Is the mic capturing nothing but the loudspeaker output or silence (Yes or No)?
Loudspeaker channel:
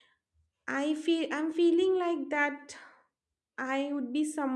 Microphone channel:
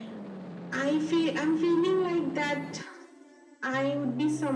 Yes